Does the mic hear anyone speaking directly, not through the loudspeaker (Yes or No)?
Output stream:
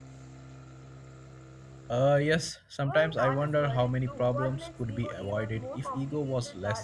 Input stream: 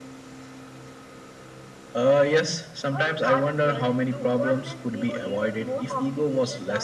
No